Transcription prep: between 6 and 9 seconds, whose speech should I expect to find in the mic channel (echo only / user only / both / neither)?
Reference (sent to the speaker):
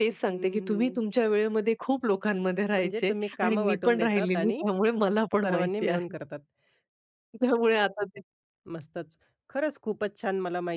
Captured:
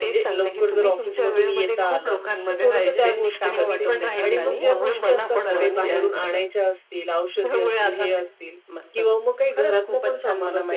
both